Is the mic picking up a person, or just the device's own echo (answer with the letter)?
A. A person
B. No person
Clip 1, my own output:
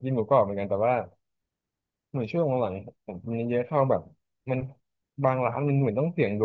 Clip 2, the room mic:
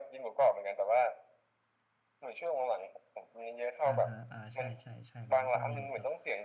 A